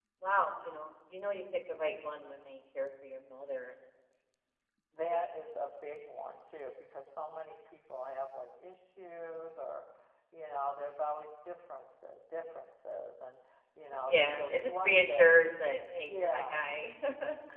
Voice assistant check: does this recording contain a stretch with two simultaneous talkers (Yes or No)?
Yes